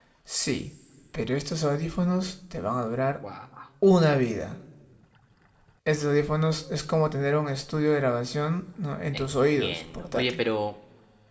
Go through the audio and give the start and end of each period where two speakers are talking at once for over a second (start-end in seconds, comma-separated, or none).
9.1-10.4